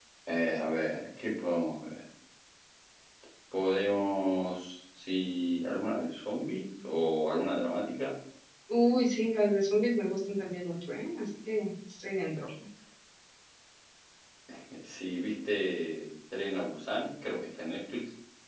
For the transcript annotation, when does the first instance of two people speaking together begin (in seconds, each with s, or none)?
none